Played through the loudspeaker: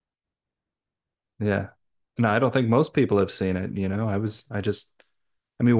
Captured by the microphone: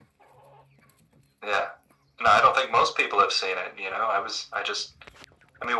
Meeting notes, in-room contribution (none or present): none